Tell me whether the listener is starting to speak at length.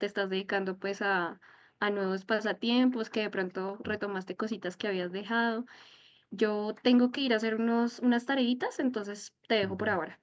Yes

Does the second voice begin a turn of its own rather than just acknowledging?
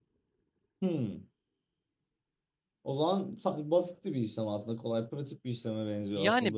Yes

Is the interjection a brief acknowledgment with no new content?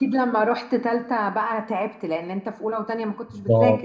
No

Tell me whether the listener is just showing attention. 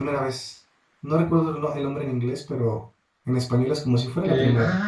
No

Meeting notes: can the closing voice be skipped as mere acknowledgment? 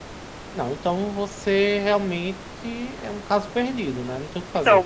No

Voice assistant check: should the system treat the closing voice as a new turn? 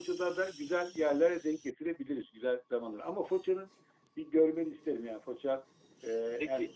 No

